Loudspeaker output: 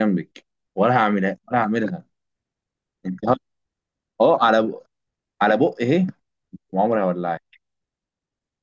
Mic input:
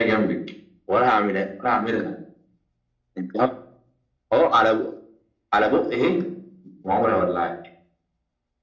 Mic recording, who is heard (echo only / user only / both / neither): echo only